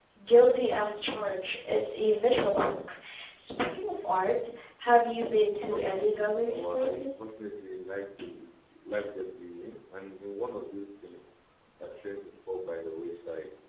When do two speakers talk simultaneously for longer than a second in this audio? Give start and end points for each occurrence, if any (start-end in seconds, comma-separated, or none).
5.7-7.2